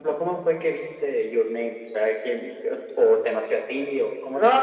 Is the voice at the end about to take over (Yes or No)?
Yes